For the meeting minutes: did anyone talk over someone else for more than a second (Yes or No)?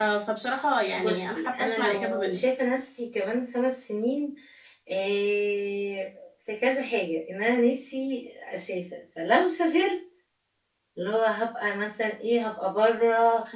Yes